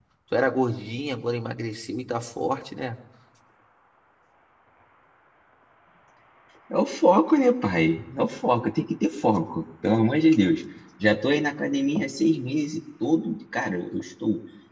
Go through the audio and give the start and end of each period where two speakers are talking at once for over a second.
none

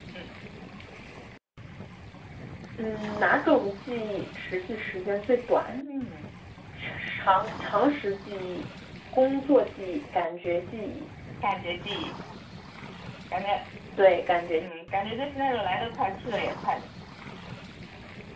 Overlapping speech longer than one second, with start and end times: none

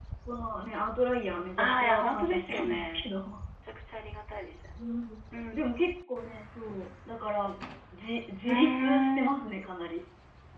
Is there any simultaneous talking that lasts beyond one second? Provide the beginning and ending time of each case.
1.6-3.0, 8.5-9.7

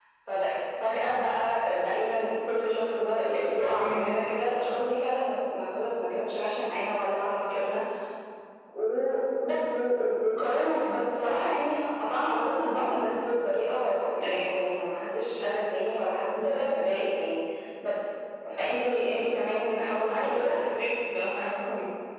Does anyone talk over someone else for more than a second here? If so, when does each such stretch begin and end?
none

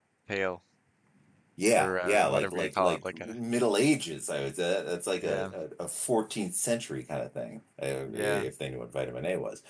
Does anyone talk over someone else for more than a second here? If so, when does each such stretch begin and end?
1.8-3.3

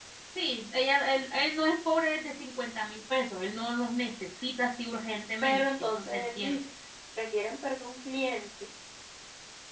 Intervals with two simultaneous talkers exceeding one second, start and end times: 5.4-6.6

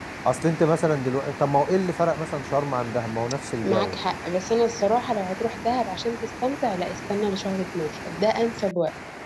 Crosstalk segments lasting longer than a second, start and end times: none

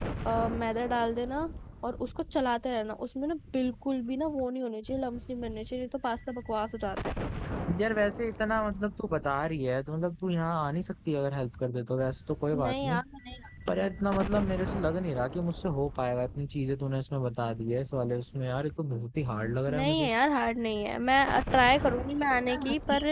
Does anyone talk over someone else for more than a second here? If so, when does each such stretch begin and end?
none

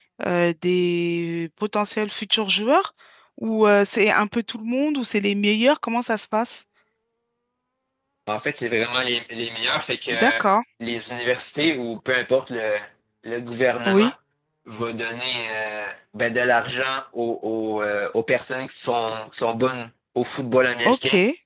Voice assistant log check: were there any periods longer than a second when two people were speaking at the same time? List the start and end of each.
none

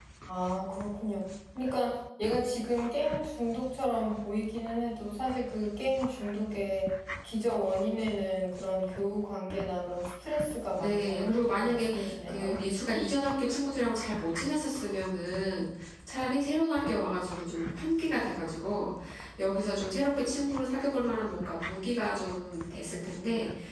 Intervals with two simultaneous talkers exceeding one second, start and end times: 10.8-12.6

